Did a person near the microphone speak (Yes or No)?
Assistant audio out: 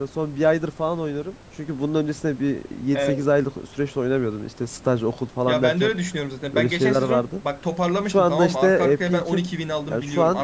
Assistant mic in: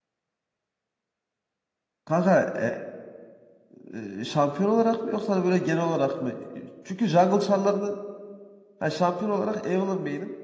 Yes